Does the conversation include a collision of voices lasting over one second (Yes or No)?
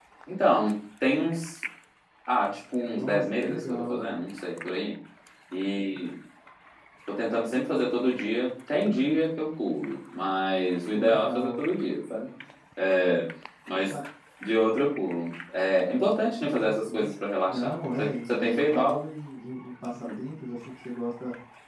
Yes